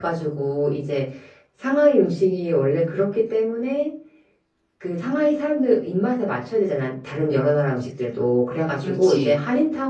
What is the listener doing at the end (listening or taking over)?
listening